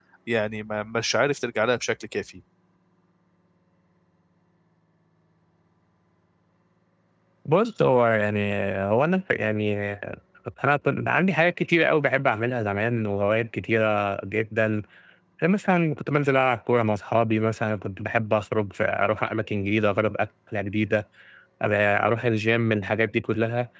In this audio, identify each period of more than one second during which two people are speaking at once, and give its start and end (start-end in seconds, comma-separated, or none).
none